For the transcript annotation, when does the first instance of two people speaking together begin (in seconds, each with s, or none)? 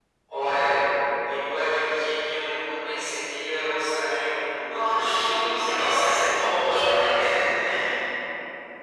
4.7 s